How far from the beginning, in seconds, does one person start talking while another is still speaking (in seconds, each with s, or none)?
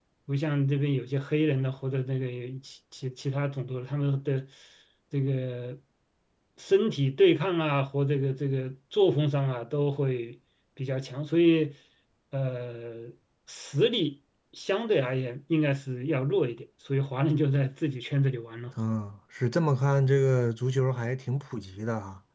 none